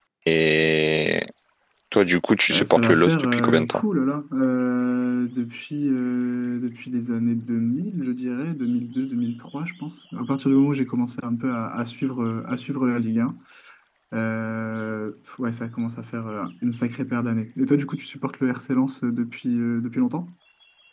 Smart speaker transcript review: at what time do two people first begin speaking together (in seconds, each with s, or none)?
2.5 s